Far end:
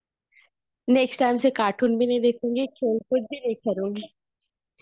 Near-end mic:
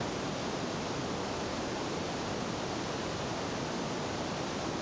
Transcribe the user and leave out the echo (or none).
none